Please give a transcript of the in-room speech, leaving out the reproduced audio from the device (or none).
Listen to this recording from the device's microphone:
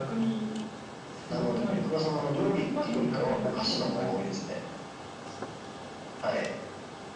none